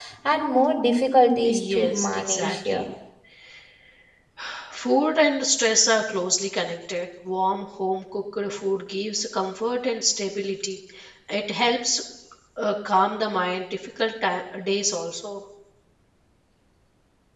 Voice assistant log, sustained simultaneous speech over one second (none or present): present